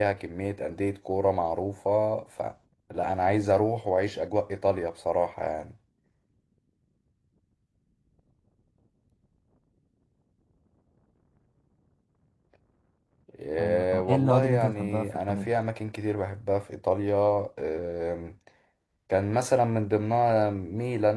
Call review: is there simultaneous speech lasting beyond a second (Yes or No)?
Yes